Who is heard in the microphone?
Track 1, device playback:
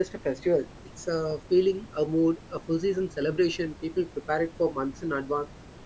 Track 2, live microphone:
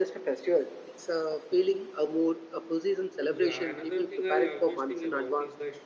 both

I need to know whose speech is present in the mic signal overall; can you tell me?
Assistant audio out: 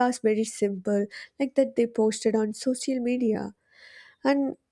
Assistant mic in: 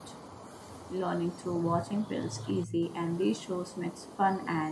user only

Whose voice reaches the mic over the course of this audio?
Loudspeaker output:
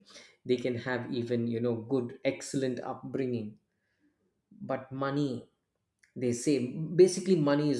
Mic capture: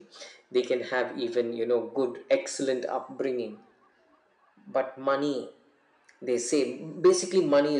echo only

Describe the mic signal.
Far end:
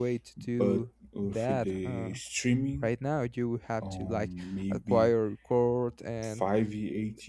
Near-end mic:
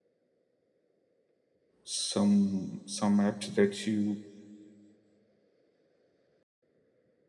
user only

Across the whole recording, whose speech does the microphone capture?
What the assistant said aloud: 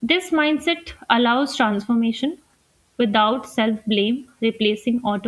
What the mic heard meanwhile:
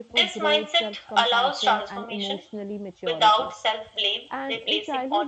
both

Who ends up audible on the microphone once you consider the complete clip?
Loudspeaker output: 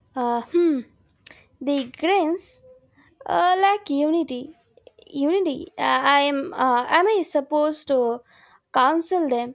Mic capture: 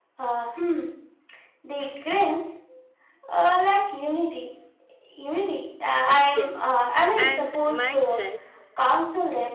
both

